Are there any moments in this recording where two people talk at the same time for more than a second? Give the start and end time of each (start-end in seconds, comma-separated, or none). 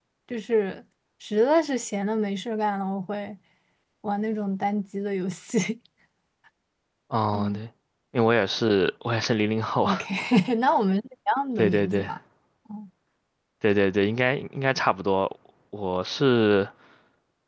none